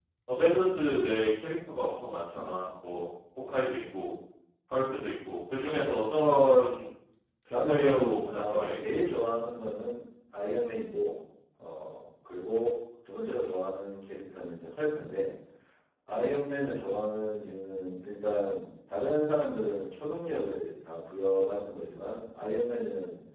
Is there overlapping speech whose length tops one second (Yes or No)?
Yes